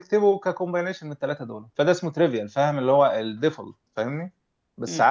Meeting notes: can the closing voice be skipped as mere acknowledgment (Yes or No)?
Yes